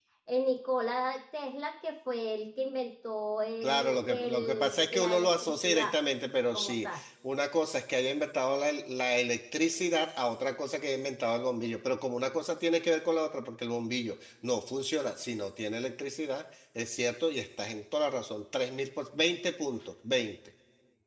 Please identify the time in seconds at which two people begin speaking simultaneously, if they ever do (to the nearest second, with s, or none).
4 s